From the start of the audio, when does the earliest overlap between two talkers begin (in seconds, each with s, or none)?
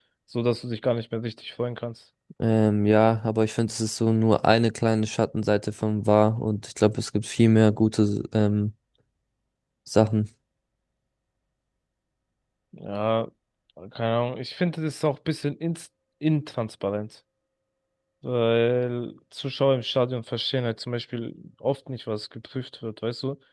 none